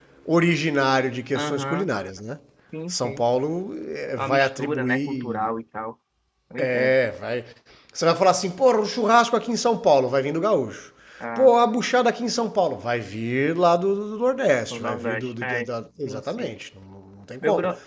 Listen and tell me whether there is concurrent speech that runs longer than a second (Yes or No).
Yes